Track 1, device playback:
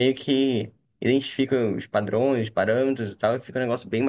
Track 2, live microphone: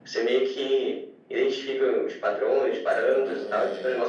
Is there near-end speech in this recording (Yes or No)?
Yes